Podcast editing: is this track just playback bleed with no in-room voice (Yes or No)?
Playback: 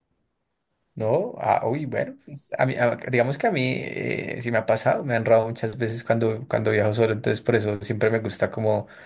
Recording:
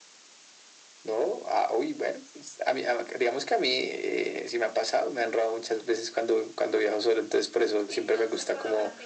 No